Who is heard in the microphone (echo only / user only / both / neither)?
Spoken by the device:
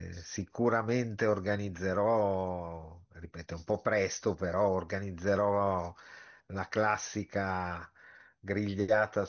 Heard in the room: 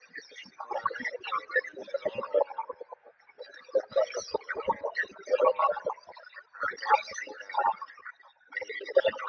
echo only